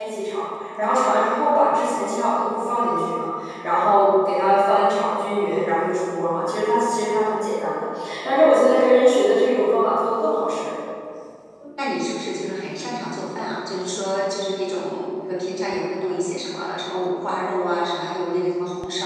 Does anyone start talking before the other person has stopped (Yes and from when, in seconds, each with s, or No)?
No